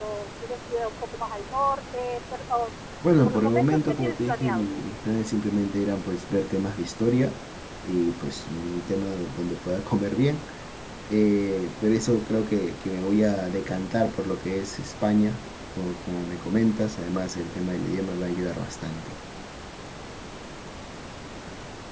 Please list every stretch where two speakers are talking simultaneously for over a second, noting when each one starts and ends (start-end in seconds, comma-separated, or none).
3.2-4.7